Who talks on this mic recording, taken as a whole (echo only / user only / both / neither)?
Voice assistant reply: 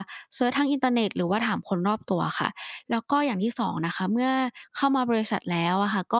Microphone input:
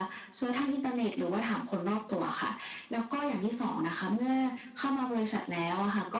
echo only